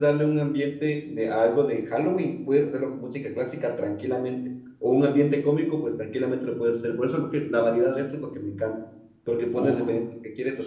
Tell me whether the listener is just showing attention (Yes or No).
Yes